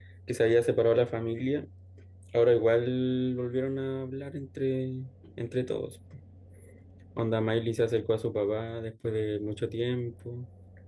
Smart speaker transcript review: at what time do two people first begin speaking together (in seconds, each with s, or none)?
none